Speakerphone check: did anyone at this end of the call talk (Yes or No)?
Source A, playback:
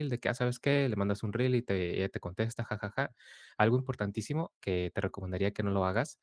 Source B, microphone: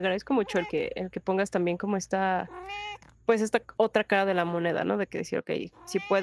Yes